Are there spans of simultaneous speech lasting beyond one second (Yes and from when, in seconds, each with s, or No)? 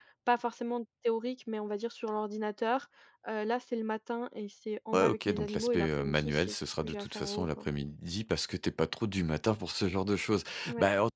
Yes, from 4.9 s